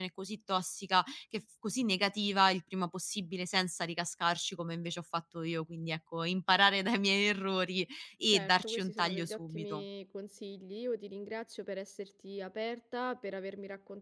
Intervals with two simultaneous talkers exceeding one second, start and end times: 8.3-9.8

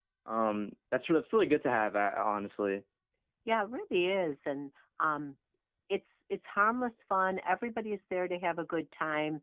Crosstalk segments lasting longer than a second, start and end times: none

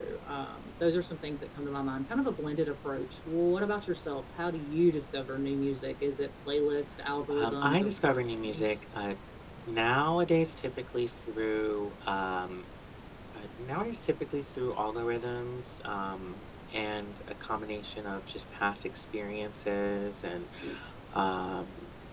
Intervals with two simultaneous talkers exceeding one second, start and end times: 7.4-8.8

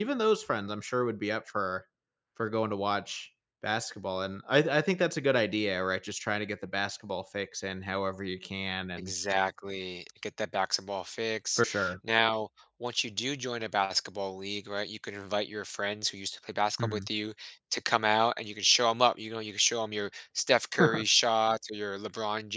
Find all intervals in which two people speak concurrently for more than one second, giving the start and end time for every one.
none

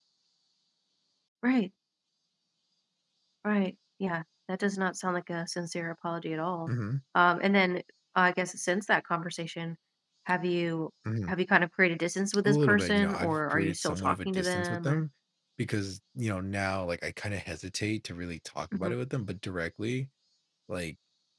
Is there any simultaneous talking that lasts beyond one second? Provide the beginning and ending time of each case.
12.4-15.0

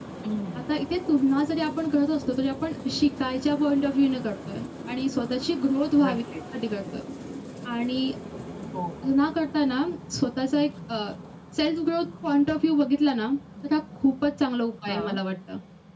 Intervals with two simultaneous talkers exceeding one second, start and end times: none

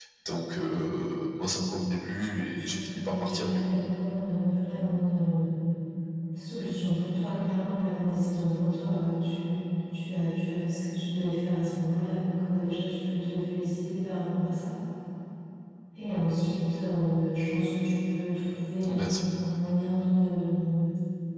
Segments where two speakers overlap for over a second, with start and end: 2.2-3.8

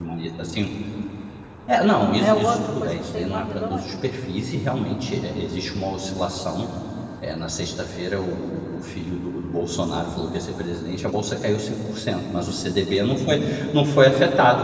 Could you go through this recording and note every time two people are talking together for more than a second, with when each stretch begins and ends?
2.2-4.1

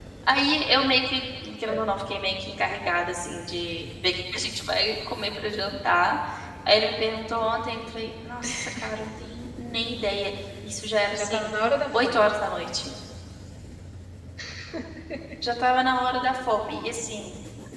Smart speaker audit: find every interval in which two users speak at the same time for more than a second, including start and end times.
none

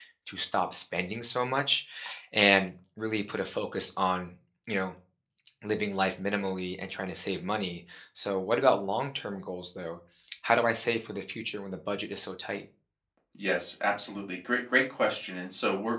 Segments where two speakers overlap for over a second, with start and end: none

